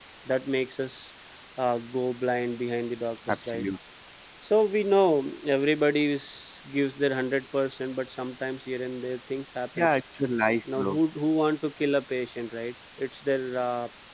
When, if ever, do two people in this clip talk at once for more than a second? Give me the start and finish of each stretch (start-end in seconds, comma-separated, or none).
none